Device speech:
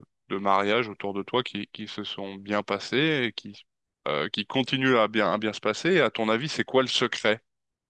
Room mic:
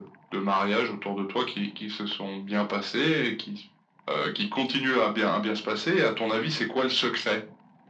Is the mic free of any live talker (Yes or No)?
Yes